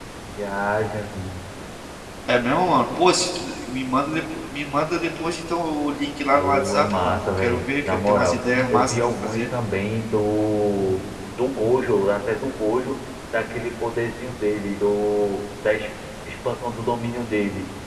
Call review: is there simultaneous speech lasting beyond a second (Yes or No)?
Yes